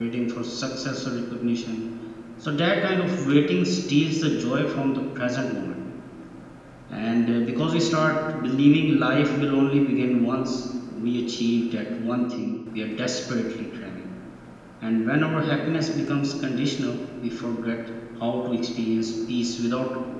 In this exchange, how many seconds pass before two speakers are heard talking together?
none

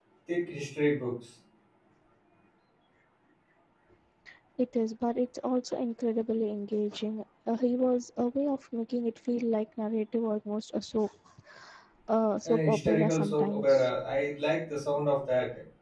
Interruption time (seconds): 12 s

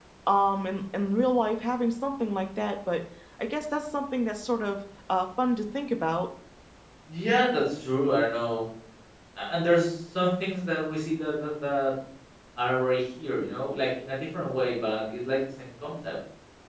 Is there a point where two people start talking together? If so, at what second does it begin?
none

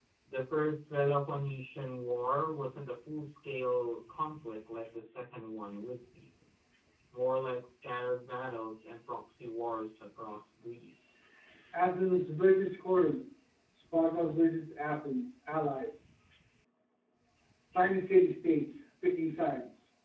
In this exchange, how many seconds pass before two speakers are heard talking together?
none

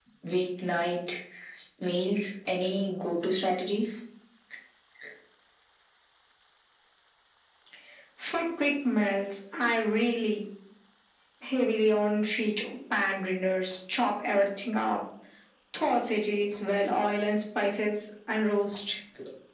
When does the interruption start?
none

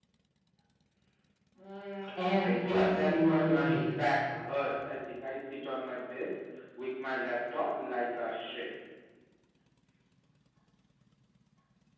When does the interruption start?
2 s

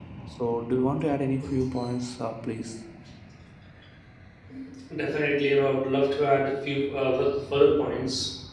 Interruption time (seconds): none

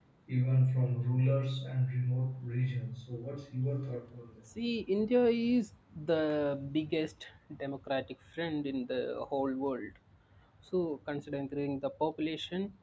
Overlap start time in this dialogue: none

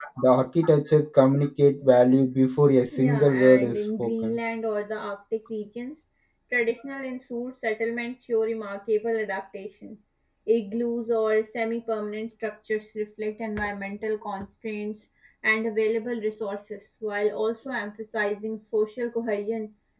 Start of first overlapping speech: 3 s

